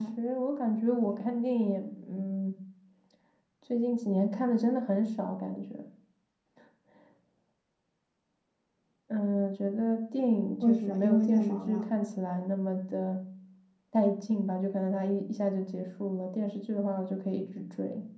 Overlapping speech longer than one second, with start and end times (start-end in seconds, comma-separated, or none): 10.6-11.9